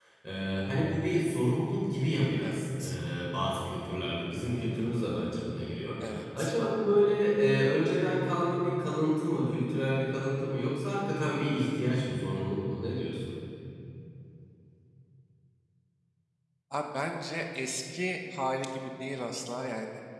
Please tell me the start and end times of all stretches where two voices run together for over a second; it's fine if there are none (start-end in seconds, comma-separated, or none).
none